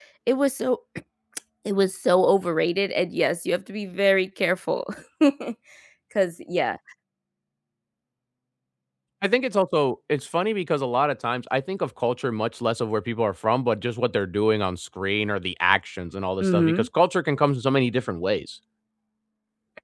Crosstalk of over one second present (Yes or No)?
No